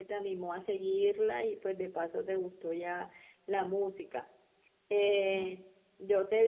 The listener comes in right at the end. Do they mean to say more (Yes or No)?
No